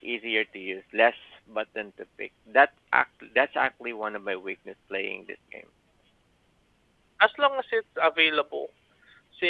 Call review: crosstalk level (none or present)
none